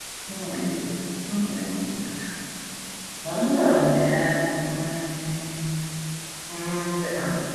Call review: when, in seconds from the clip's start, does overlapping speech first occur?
none

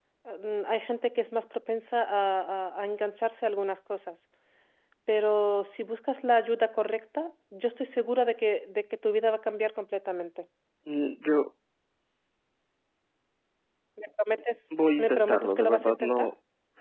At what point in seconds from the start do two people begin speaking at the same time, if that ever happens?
15.0 s

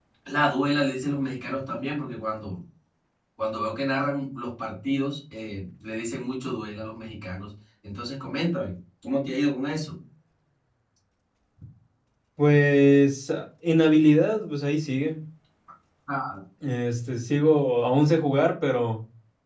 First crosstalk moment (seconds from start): none

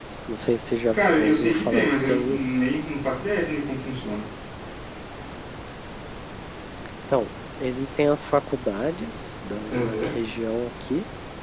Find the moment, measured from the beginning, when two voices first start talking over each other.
0.9 s

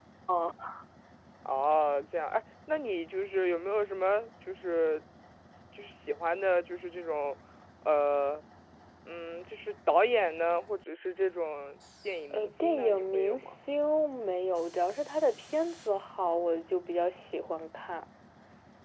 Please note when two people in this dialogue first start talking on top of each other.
12.3 s

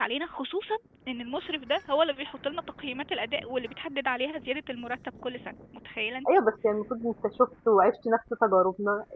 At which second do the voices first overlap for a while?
none

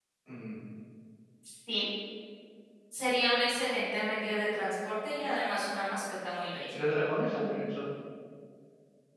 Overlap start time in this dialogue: none

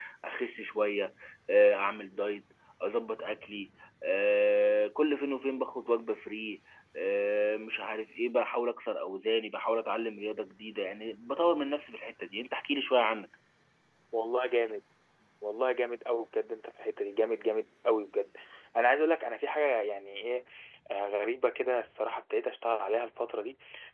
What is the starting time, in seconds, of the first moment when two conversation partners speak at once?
none

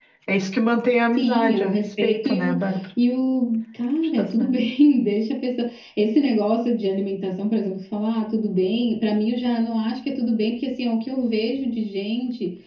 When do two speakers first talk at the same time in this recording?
1.1 s

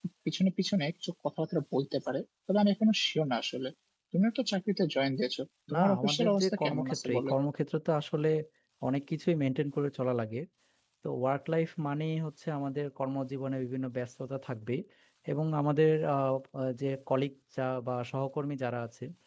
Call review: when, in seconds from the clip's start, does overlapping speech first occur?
5.7 s

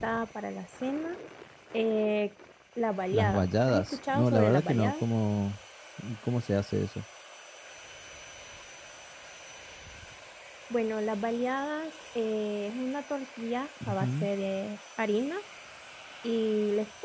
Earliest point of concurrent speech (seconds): 3.1 s

